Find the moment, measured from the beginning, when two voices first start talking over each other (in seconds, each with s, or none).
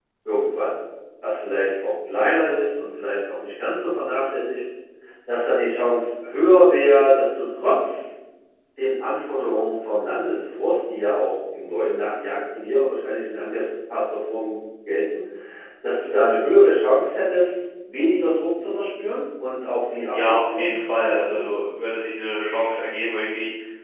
20.1 s